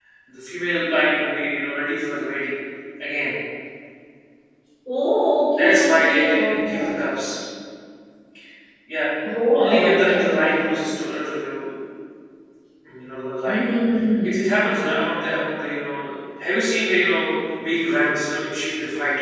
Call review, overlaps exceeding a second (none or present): present